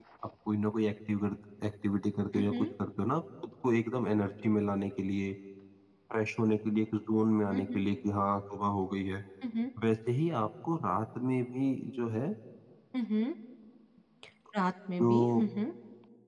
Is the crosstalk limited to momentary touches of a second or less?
Yes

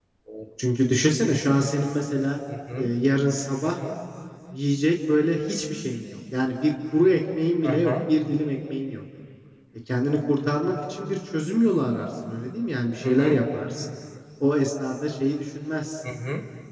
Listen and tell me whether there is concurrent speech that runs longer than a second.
No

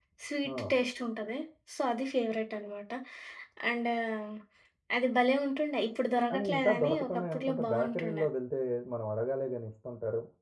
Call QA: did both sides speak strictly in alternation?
No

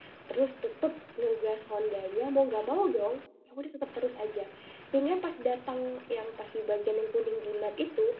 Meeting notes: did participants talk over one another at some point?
No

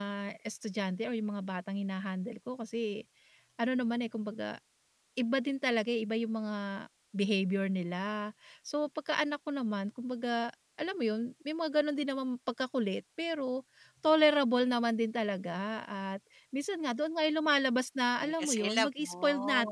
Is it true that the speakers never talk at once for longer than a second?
No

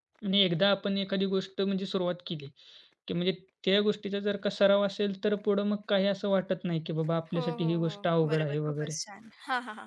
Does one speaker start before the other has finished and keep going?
Yes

